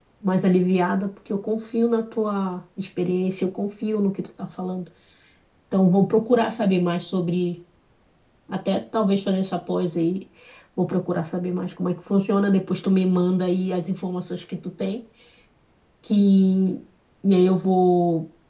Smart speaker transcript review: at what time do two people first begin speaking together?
none

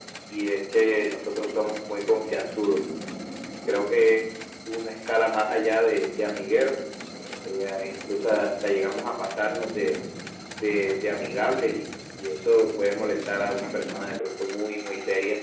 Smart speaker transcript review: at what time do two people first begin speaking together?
none

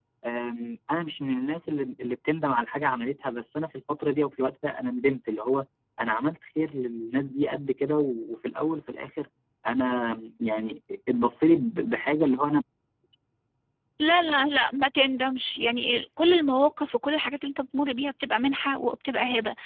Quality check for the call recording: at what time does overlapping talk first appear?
none

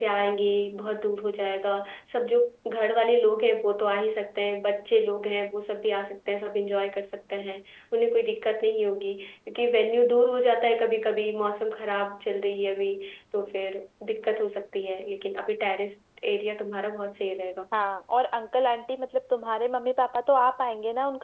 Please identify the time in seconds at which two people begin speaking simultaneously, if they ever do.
none

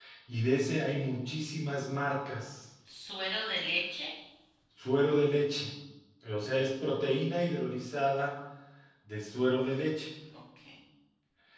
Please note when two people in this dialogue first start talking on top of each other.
none

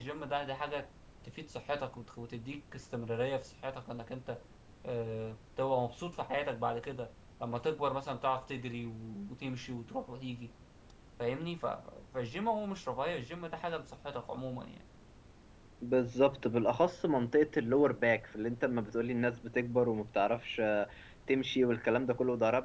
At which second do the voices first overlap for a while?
none

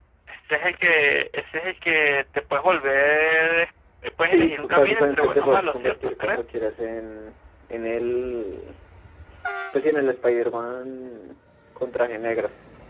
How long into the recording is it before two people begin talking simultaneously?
4.2 s

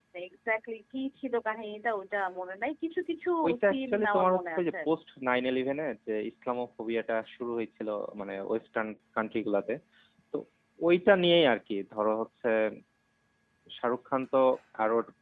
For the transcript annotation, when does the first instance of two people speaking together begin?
3.4 s

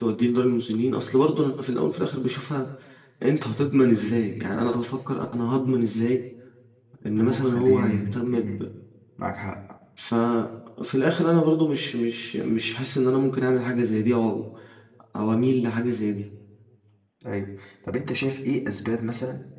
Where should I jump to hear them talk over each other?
7.2 s

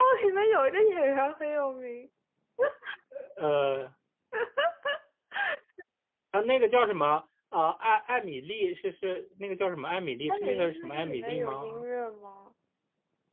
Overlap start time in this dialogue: 10.3 s

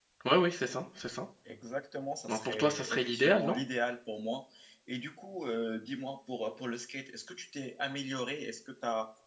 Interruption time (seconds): 2.3 s

